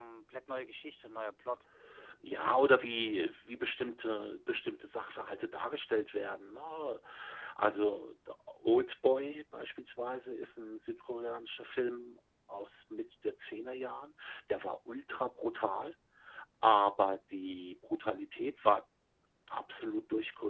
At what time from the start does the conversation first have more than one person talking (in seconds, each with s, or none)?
none